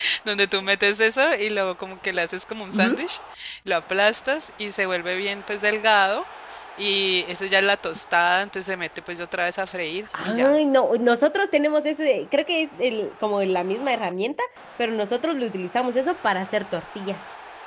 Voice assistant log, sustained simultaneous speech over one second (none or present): none